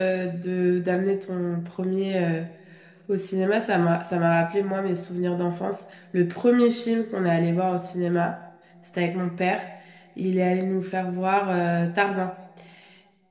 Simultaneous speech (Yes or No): No